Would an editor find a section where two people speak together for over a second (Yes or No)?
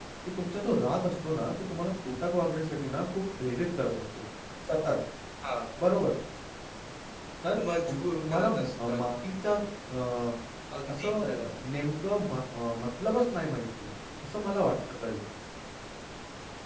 Yes